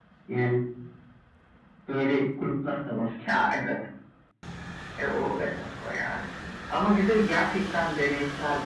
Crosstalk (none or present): none